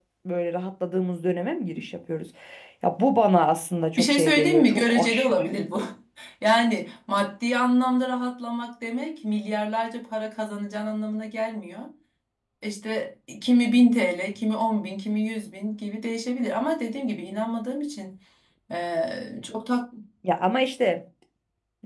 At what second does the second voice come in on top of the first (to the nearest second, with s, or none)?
4 s